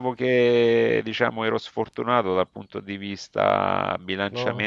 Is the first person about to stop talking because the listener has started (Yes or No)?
No